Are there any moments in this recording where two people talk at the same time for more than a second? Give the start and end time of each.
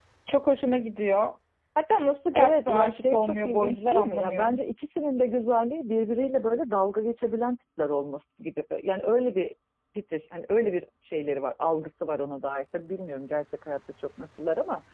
2.3-4.6

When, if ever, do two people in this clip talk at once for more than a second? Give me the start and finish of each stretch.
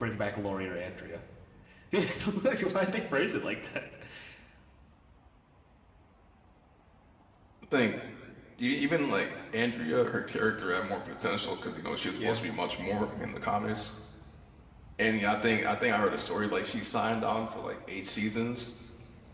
none

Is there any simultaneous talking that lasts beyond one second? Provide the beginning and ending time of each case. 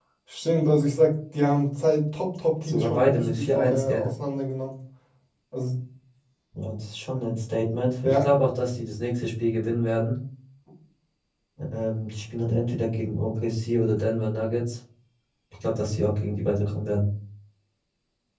2.6-4.0

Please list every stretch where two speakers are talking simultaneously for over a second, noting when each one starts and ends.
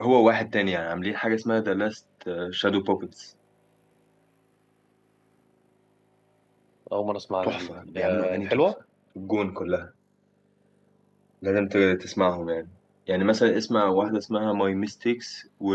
7.4-8.7

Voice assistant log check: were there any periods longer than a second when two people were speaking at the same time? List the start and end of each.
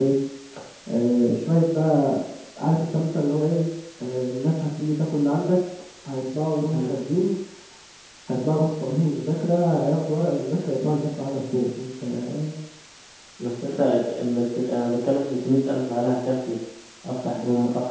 none

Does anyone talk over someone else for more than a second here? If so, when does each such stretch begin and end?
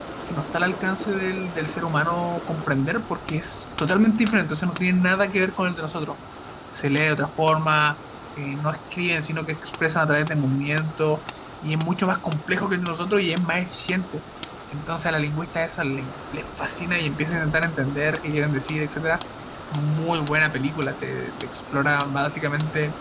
none

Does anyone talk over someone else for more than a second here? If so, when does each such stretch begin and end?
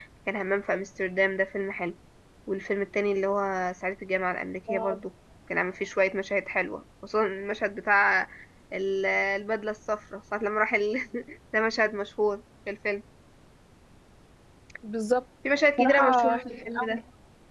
15.8-17.0

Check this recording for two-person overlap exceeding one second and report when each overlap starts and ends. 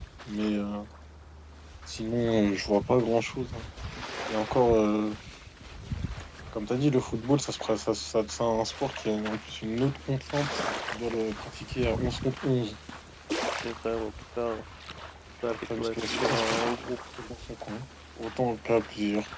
15.5-16.9

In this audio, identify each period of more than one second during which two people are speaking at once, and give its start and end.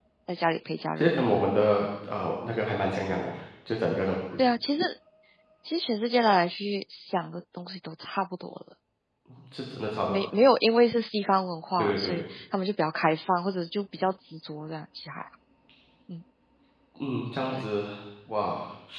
none

